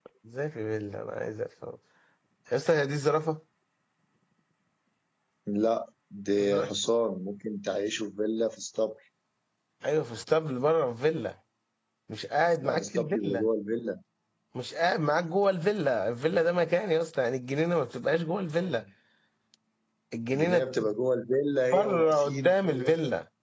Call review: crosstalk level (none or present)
present